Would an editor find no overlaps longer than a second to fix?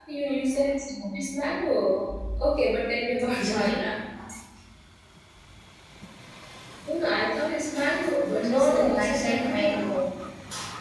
No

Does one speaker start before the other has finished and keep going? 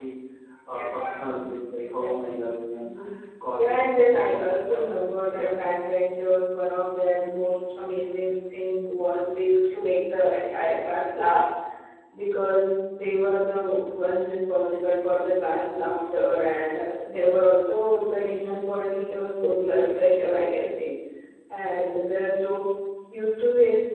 Yes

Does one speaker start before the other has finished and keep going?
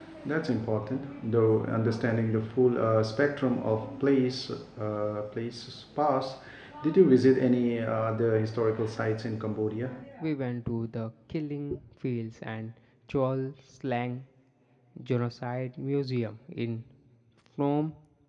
No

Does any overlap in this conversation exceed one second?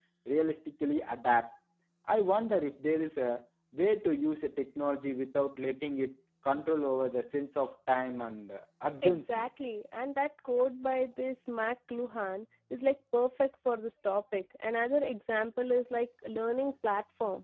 No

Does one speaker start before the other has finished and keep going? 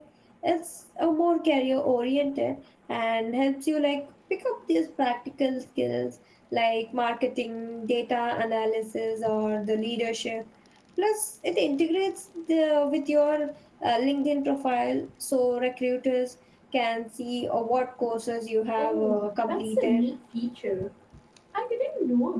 Yes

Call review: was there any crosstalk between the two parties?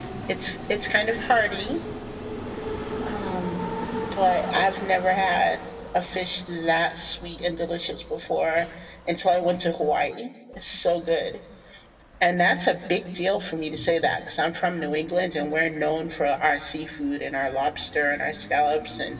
No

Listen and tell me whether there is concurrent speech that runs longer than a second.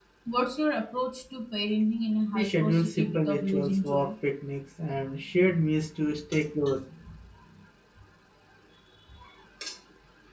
Yes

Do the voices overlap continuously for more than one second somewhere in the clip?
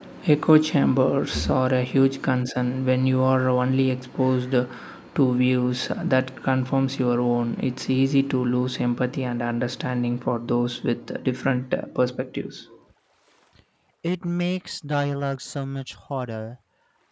No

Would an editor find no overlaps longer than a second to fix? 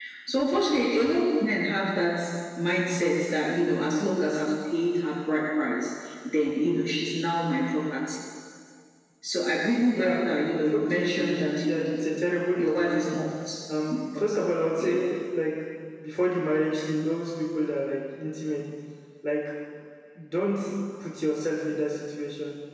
No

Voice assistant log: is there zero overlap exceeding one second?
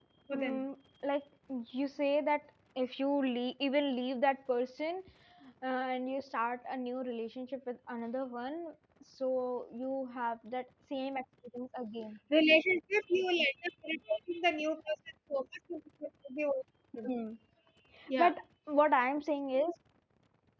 Yes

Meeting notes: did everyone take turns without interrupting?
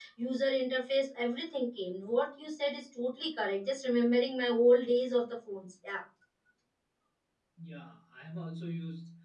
Yes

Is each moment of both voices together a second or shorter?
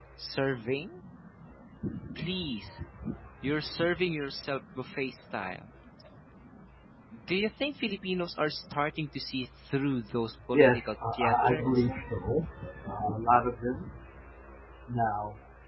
No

